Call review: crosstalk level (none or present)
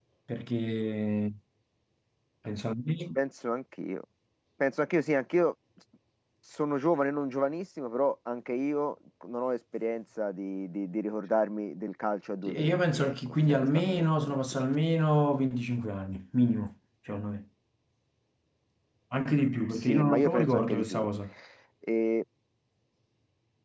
present